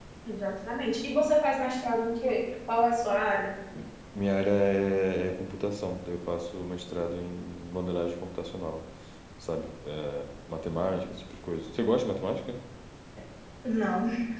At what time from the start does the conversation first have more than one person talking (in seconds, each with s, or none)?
none